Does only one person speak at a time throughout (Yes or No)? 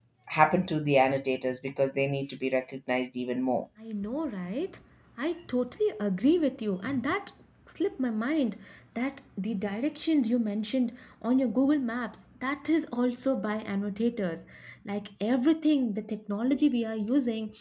Yes